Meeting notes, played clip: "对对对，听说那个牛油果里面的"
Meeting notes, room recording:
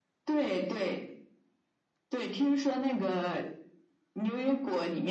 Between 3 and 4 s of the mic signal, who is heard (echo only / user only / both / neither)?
echo only